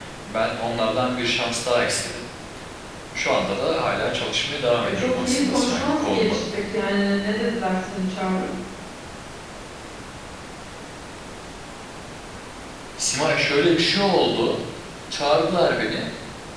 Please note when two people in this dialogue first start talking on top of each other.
4.8 s

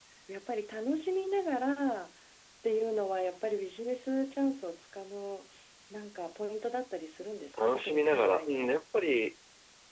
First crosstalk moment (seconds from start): 7.5 s

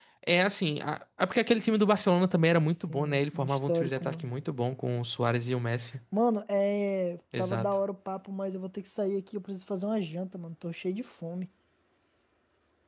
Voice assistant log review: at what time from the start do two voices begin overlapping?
2.9 s

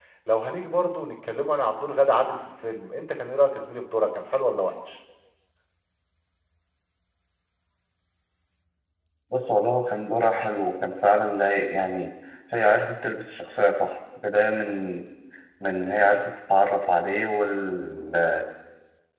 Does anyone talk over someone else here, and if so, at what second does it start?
none

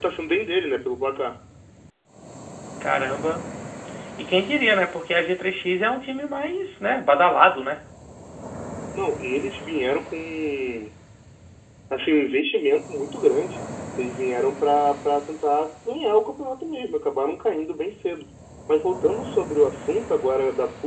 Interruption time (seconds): none

